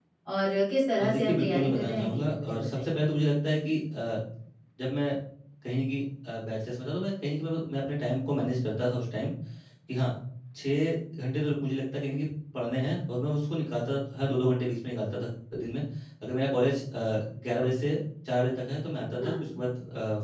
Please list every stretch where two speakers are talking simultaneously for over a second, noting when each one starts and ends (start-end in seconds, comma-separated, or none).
1.0-2.9